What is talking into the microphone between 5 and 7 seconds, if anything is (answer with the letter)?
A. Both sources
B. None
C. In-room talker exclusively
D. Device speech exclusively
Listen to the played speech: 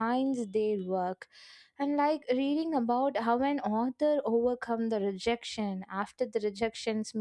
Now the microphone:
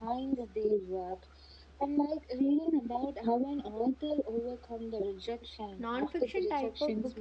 A